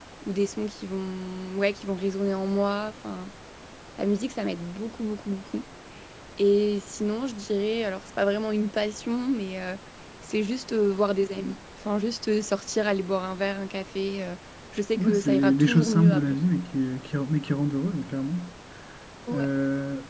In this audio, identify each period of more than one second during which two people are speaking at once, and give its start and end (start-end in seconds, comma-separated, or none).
15.0-16.4